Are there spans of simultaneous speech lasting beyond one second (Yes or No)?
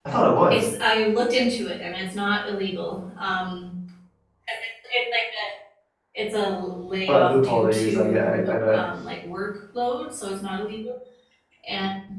Yes